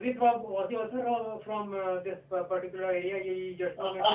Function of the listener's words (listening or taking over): taking over